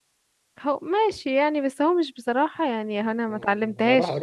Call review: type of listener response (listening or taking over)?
taking over